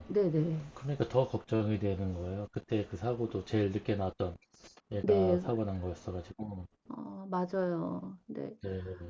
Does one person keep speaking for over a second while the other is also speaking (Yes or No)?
No